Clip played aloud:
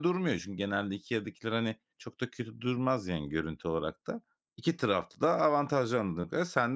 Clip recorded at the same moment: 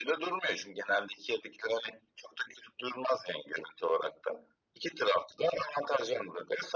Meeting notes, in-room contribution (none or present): none